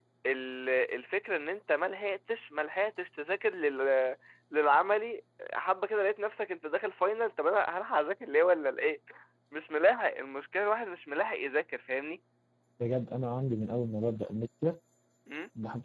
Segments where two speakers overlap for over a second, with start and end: none

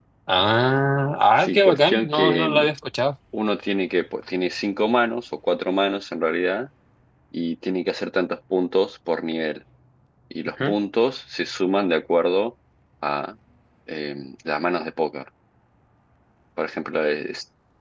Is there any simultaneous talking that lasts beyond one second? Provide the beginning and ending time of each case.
1.4-2.7

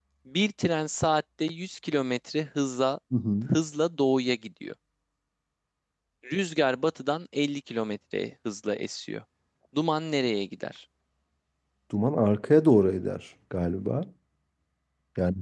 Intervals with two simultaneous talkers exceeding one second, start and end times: none

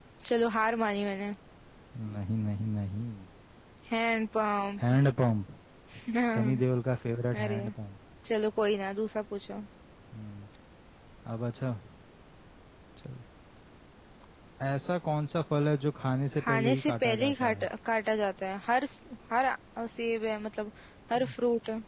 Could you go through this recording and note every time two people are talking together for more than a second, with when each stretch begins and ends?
16.4-17.7

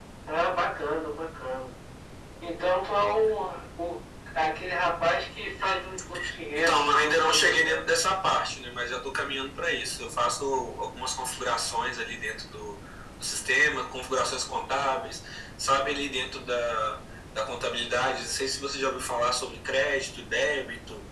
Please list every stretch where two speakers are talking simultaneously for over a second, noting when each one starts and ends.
6.6-7.8

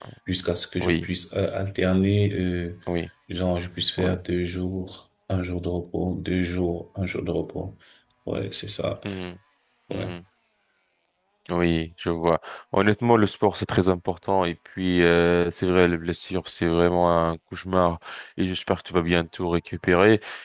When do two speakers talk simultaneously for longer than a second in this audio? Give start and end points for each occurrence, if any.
none

